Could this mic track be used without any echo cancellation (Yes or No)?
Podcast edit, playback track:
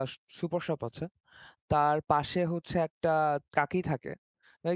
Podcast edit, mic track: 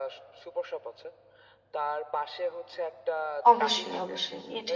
No